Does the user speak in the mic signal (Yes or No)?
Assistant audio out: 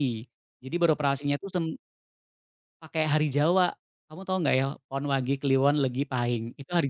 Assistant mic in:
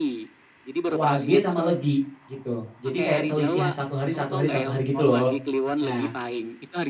Yes